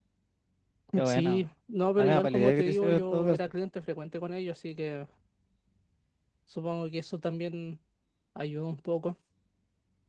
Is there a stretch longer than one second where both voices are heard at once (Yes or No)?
Yes